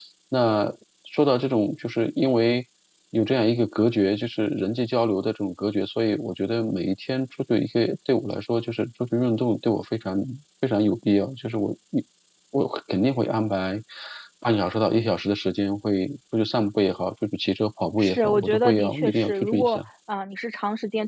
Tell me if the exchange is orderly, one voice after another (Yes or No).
No